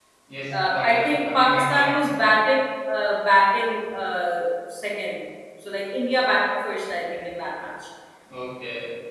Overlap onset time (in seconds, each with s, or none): 0.5 s